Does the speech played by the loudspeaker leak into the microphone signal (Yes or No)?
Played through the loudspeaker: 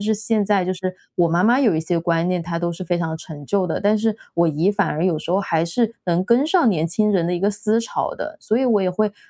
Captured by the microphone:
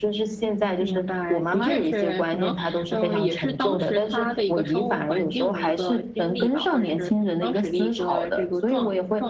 Yes